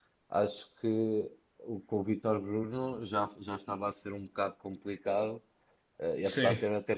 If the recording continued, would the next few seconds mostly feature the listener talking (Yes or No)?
No